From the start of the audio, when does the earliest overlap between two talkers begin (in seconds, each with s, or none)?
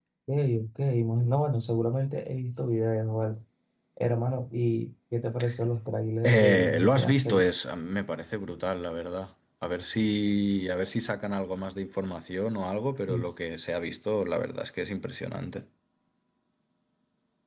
6.2 s